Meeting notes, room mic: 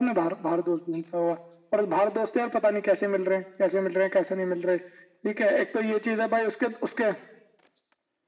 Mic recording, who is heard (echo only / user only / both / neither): echo only